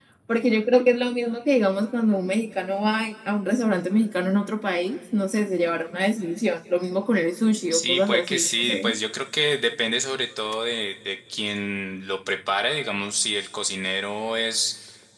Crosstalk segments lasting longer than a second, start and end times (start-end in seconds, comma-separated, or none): 7.7-8.9